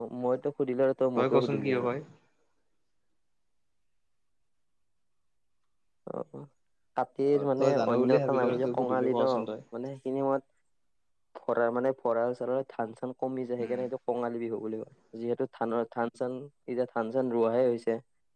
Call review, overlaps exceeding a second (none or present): present